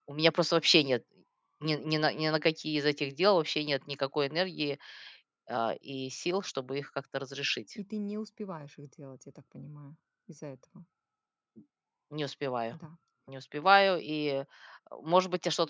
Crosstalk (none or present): none